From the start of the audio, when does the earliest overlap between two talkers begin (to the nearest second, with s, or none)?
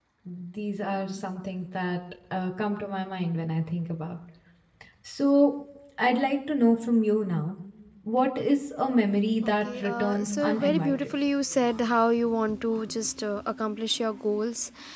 9 s